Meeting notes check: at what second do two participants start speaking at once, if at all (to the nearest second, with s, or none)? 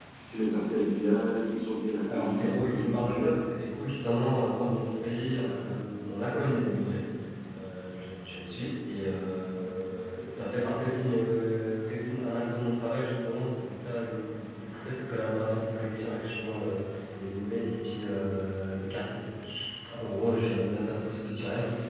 2 s